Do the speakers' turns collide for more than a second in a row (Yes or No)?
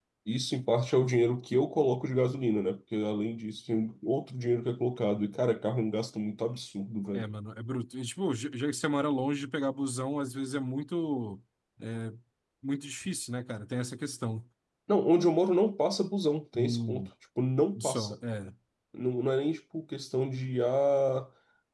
No